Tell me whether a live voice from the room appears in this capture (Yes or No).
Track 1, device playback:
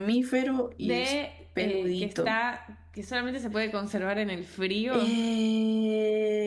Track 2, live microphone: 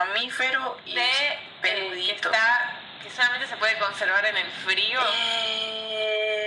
No